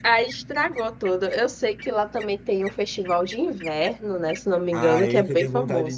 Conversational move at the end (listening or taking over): taking over